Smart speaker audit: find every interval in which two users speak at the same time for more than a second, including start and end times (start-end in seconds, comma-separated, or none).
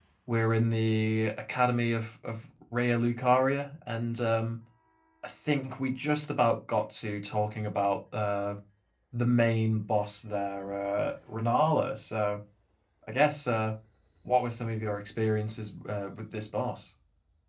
none